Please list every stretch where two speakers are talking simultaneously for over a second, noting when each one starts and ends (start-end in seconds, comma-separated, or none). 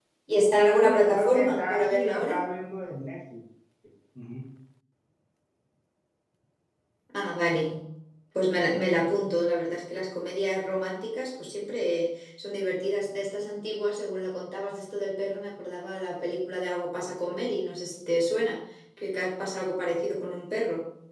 0.8-2.4